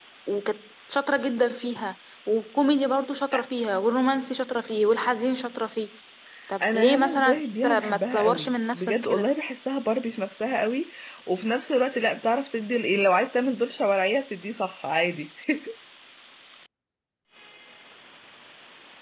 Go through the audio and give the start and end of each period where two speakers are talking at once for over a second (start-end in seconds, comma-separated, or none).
6.7-9.3